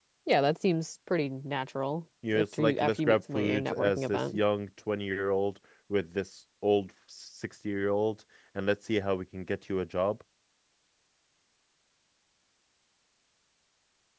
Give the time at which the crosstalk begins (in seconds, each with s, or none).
2.2 s